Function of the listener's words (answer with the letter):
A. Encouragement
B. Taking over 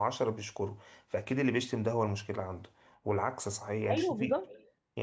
A